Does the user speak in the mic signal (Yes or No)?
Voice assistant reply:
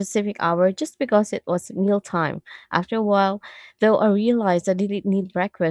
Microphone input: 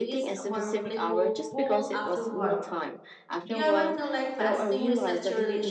Yes